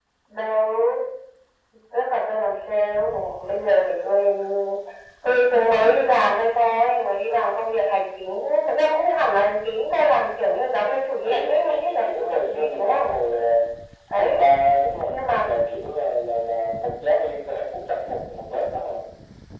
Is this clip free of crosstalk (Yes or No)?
No